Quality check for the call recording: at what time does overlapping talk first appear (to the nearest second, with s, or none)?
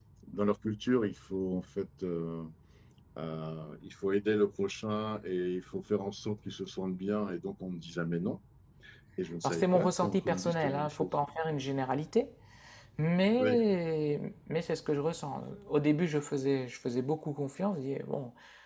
9 s